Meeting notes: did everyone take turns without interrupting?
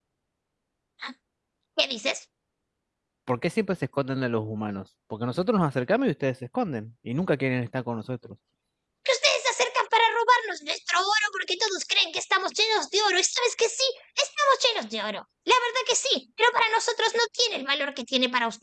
Yes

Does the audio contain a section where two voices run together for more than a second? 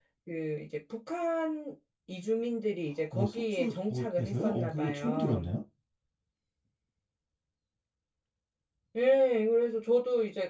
Yes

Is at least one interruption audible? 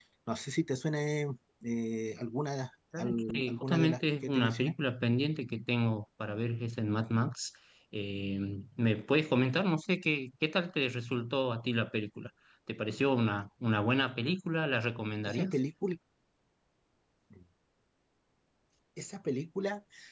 Yes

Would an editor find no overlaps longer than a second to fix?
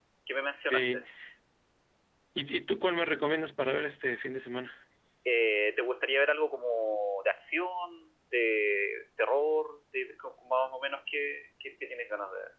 Yes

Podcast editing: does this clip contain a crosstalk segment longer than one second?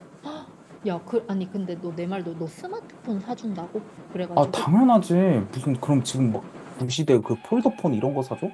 No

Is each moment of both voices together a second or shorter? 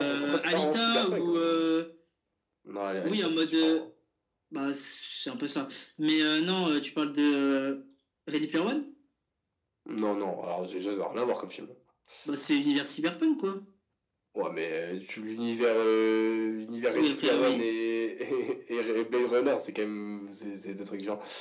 No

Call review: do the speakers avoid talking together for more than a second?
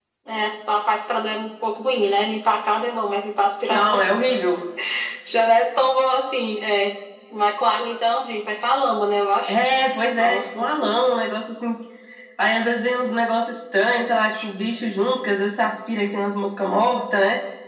Yes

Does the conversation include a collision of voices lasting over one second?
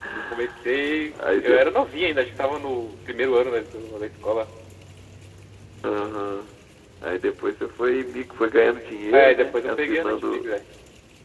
Yes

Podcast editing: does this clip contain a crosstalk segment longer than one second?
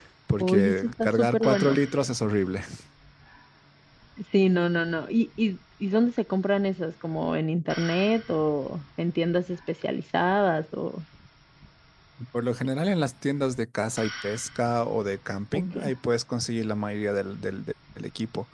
Yes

